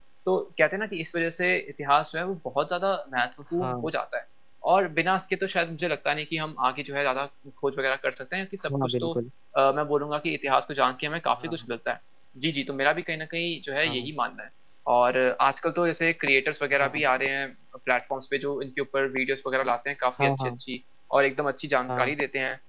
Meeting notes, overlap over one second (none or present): none